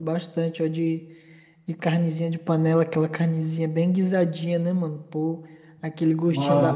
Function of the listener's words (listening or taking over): listening